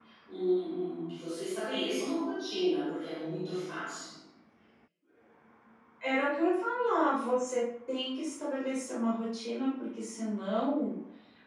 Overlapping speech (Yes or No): No